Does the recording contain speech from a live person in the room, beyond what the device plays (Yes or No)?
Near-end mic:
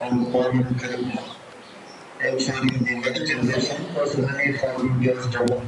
Yes